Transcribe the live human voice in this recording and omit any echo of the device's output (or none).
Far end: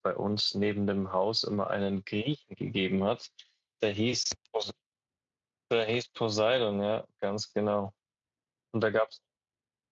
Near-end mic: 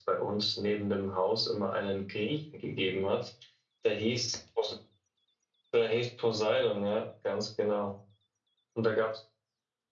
none